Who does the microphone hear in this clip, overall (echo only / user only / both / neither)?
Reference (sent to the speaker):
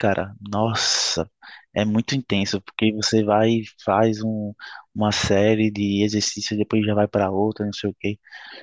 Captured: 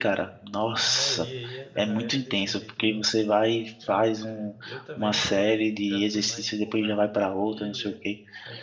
both